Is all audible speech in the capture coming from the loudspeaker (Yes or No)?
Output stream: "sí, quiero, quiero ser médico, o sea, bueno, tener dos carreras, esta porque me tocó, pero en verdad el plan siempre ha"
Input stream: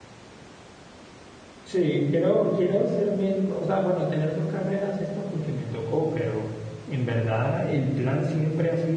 Yes